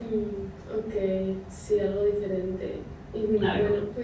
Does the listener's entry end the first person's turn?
No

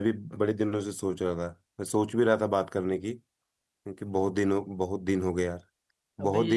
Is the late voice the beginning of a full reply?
No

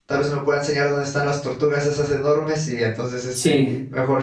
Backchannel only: Yes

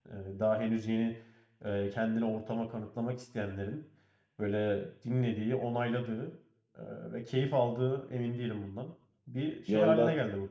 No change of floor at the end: No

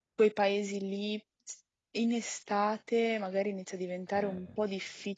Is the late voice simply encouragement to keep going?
Yes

